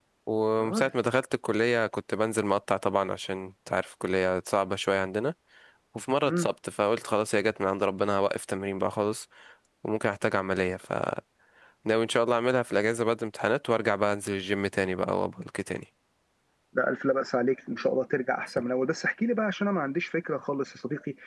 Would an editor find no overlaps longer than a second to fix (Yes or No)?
Yes